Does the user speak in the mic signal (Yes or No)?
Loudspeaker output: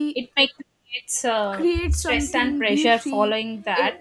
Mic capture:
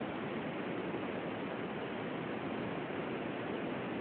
No